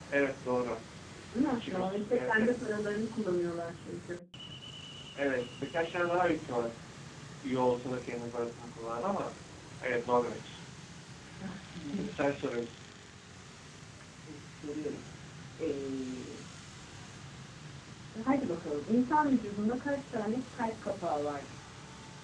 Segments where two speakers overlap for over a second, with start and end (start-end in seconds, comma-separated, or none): 1.5-2.7